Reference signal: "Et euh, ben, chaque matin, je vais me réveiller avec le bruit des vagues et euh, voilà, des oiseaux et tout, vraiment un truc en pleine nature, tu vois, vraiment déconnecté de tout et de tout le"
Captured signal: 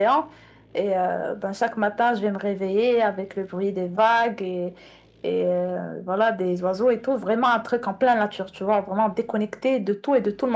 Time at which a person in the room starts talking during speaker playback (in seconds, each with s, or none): none